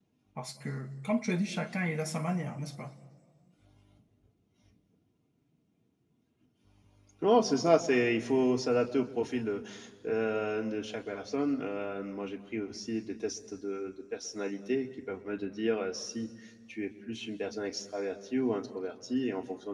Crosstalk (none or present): none